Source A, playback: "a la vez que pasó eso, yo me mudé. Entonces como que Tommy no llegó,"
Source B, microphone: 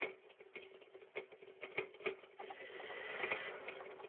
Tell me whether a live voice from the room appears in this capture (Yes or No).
No